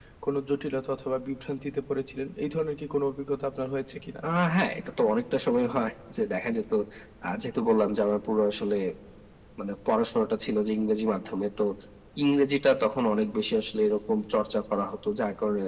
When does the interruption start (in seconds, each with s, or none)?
none